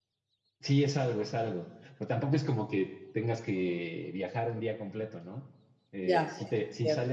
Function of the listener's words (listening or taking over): listening